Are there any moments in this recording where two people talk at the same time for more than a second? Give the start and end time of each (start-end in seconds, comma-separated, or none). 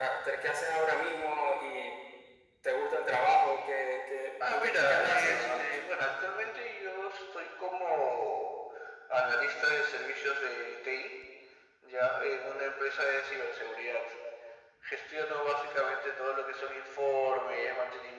4.4-5.7